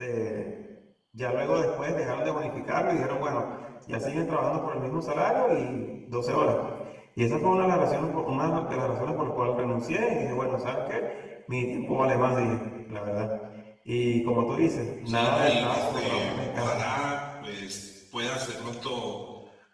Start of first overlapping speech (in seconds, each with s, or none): 15.1 s